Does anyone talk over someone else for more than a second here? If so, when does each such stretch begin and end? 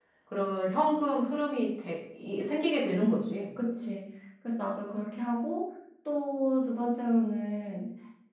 none

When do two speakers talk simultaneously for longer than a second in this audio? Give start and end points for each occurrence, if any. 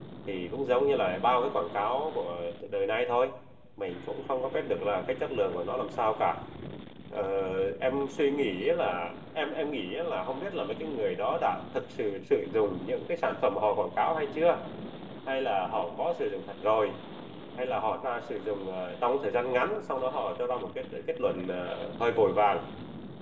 none

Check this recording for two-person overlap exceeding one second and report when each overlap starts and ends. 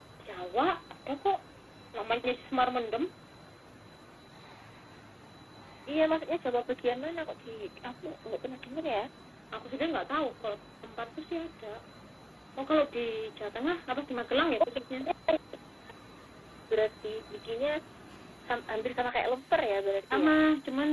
none

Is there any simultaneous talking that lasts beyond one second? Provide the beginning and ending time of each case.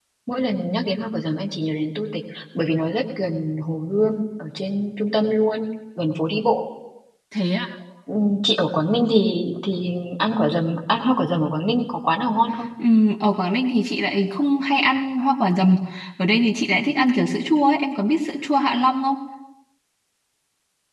none

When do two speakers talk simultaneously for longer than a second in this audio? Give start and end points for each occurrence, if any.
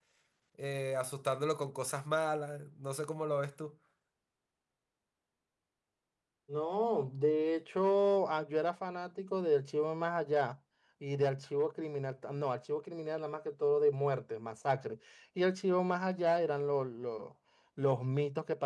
none

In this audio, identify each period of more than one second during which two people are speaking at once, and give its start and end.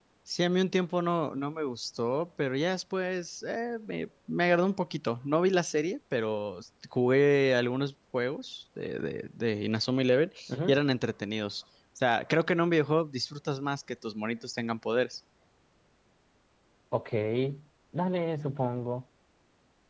none

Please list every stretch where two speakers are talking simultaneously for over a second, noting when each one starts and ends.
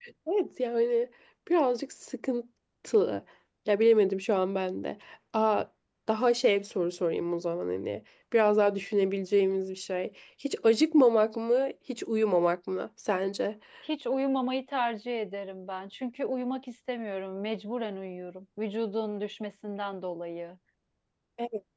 none

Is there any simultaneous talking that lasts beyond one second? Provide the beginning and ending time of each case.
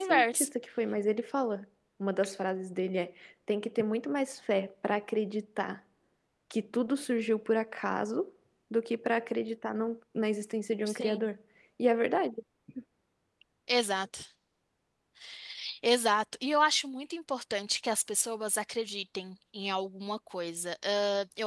none

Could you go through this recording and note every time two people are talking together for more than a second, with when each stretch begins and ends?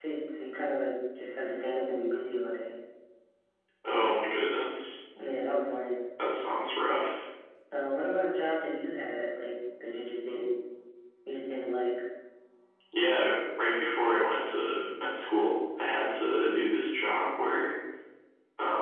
none

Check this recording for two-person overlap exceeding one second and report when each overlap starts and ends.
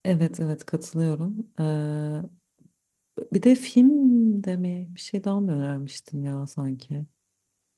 none

